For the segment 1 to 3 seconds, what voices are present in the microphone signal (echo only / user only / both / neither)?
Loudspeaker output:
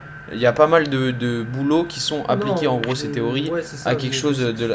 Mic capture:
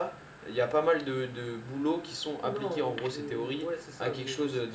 echo only